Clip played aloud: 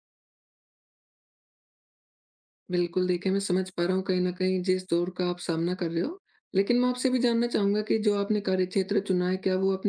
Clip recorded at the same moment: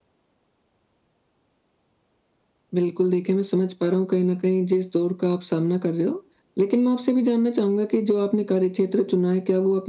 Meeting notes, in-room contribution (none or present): none